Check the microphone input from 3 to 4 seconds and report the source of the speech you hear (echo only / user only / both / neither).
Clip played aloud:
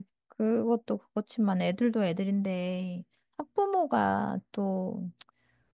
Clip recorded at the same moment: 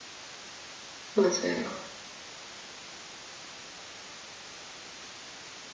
neither